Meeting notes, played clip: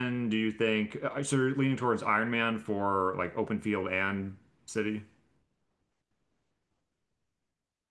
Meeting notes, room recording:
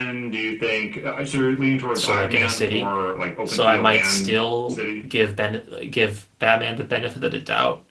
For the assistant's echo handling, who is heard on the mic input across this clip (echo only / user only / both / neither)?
both